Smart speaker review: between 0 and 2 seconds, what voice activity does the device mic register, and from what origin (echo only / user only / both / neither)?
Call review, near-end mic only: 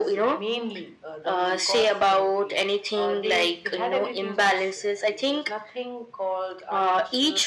echo only